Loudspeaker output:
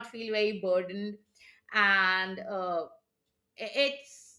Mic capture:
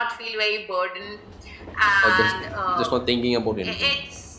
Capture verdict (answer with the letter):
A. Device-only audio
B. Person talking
B